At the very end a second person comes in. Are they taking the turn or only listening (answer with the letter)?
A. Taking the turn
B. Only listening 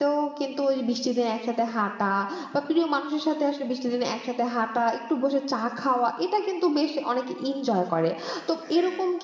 B